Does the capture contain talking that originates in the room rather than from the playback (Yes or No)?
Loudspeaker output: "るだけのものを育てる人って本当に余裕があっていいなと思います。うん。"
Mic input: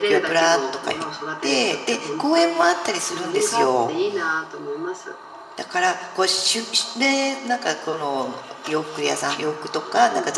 Yes